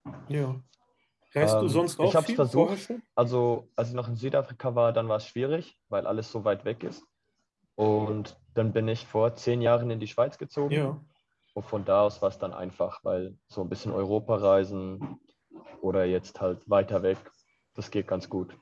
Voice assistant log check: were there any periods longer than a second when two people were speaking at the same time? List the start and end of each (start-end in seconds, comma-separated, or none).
1.4-2.8